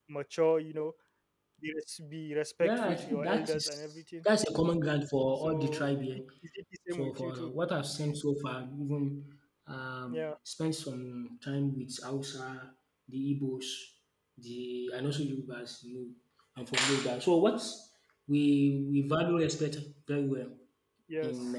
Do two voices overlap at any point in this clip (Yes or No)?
Yes